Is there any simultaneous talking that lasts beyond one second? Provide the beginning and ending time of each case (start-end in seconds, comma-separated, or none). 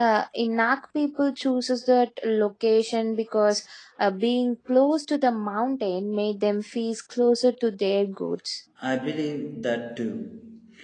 none